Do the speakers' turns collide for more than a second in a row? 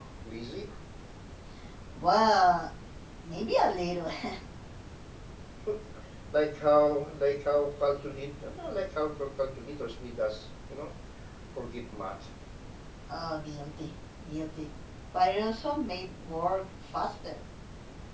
No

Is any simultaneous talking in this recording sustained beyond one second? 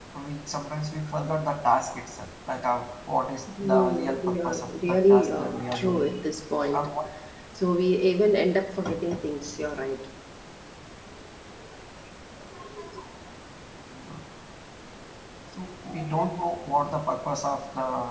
Yes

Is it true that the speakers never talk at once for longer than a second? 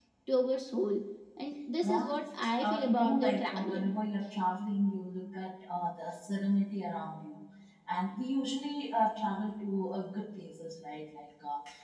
No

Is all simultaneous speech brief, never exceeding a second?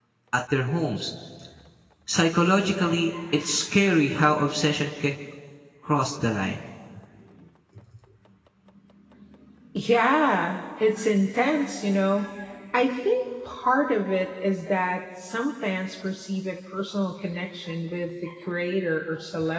Yes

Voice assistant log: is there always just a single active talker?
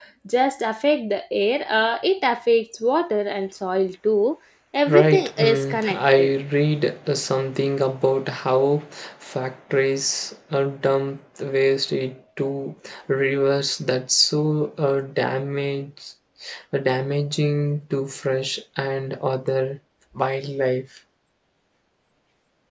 No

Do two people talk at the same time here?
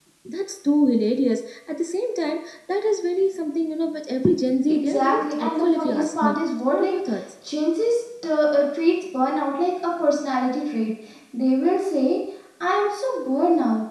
Yes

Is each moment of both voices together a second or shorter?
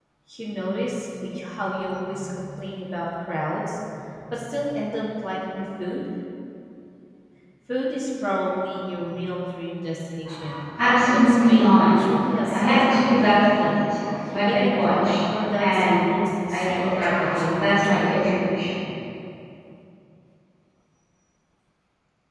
No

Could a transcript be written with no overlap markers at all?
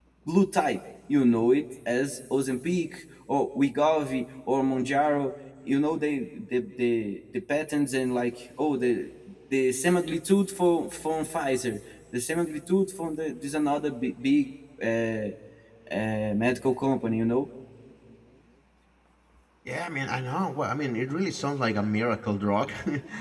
Yes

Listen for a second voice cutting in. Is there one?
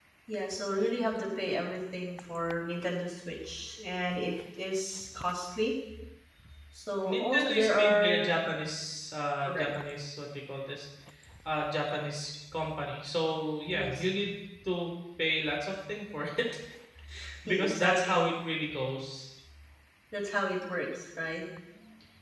Yes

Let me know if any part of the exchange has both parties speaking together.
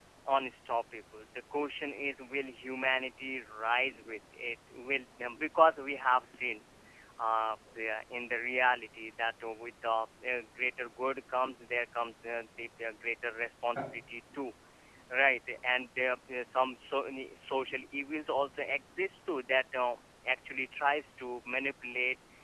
No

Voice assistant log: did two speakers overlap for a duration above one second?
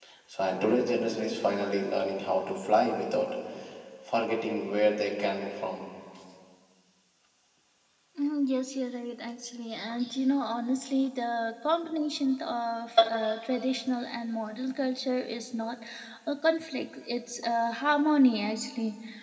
No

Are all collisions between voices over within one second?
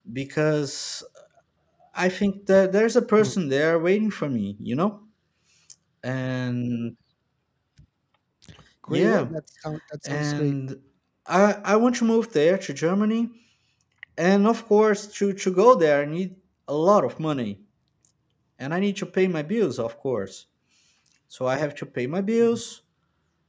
Yes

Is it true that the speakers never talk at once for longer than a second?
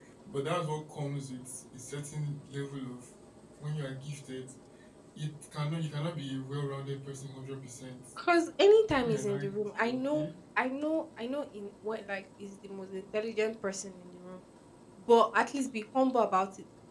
No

